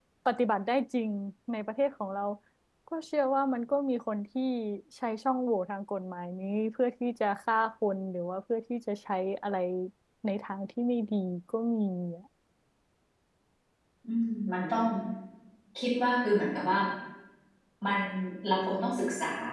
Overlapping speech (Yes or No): No